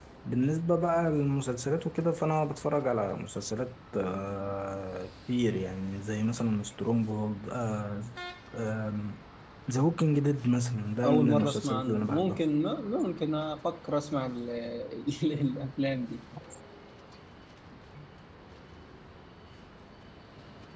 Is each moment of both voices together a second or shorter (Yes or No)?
No